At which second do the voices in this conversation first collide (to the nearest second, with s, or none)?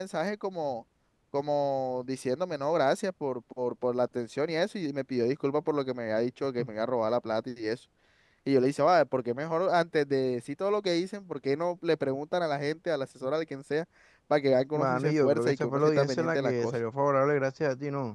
15 s